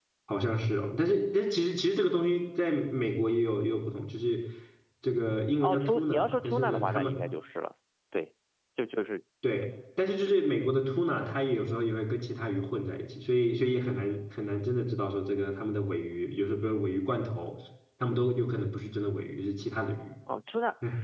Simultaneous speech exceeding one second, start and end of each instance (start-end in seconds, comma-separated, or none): 5.6-7.1